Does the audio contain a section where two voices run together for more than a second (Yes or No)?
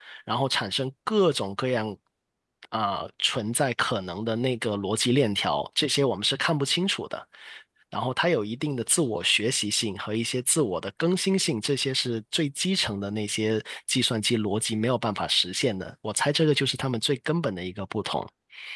No